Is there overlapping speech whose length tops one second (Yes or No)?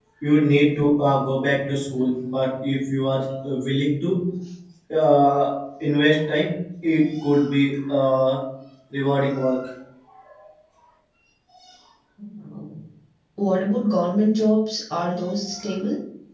No